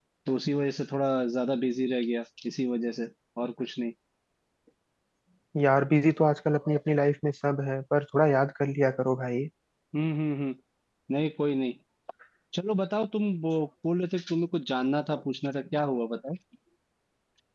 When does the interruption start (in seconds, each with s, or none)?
none